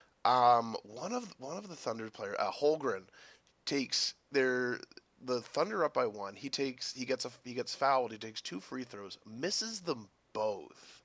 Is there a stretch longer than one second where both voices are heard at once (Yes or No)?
No